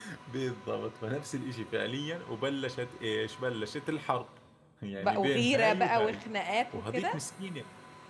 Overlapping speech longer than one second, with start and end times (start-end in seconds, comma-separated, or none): 5.0-6.2